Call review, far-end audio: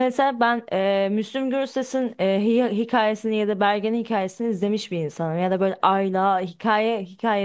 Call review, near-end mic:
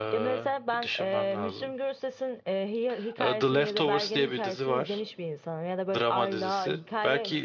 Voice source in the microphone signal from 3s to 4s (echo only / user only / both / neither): both